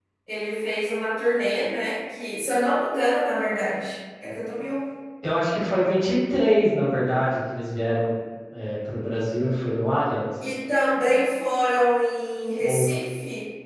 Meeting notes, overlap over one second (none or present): none